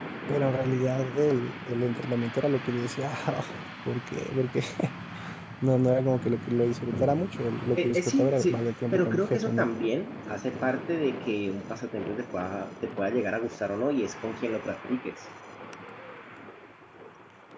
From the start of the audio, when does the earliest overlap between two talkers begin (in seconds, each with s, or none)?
7.8 s